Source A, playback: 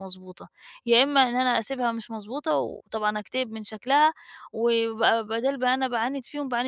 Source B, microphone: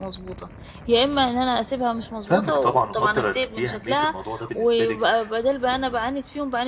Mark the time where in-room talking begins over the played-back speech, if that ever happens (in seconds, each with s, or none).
2.2 s